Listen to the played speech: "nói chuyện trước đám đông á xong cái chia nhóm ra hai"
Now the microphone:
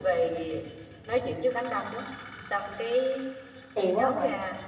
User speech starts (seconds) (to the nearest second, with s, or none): 4 s